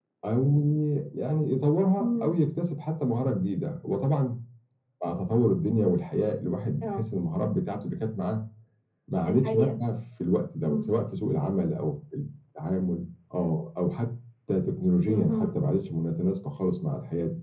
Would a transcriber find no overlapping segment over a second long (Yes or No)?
Yes